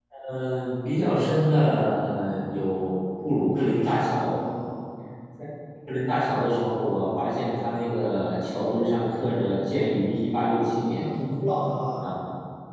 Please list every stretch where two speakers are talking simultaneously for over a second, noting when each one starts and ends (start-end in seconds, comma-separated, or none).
none